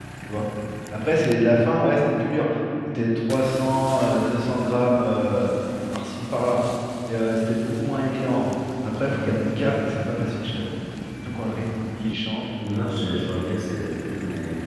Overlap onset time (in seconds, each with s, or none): none